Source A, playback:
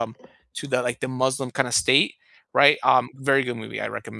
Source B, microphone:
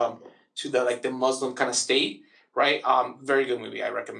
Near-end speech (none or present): none